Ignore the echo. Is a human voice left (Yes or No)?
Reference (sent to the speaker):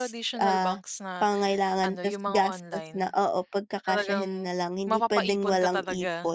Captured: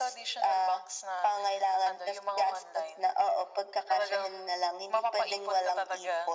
No